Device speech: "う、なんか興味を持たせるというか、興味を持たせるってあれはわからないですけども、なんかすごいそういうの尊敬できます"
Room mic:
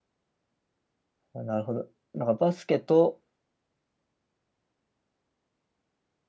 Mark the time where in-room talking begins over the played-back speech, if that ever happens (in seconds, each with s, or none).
1.3 s